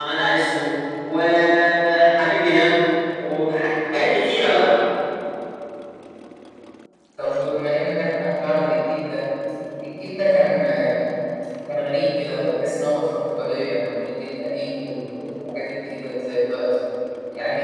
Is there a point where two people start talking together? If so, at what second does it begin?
none

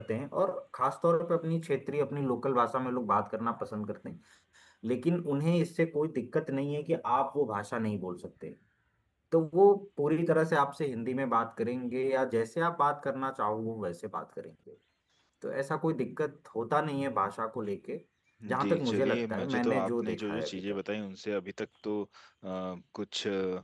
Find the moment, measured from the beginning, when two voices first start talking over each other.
18.6 s

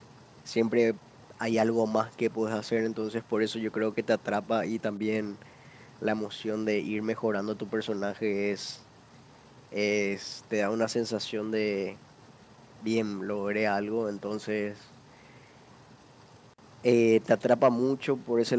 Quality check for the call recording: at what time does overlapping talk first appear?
none

